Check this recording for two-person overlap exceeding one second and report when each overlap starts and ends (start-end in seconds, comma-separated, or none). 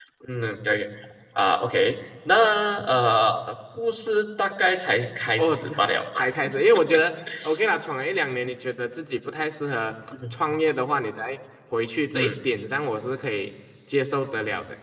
none